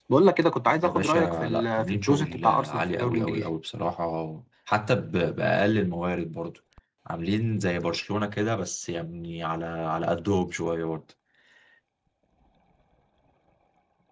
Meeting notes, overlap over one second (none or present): present